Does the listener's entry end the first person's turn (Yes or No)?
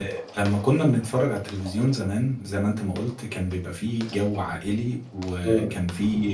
No